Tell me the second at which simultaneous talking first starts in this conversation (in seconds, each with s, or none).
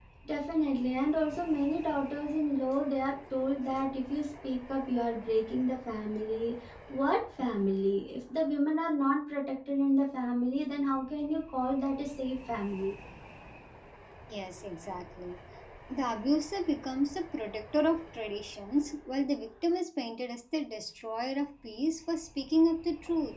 none